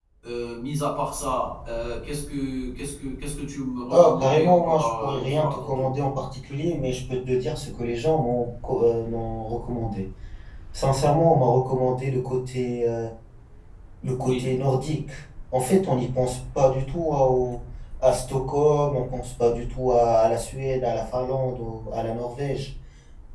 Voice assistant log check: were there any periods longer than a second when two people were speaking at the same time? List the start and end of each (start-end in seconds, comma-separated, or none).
3.9-6.0